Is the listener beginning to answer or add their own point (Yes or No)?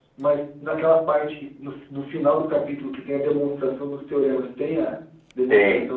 Yes